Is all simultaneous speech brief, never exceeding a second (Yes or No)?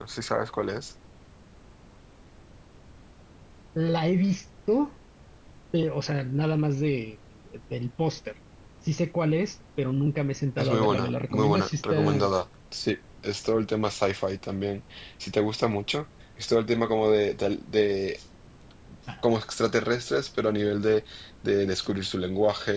No